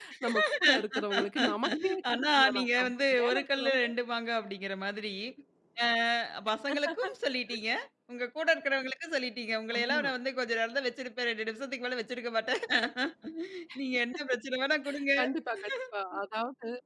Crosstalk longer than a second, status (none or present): present